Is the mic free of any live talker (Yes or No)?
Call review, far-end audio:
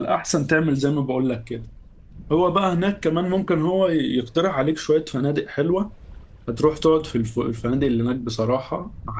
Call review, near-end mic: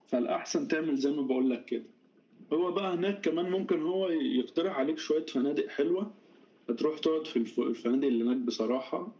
Yes